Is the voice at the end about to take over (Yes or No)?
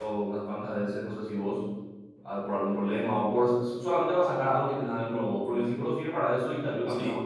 No